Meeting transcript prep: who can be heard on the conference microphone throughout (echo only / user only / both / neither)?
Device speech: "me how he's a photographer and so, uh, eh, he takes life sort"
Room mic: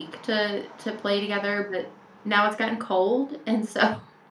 user only